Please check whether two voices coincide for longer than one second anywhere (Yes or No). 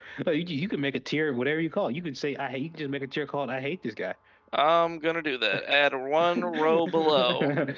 Yes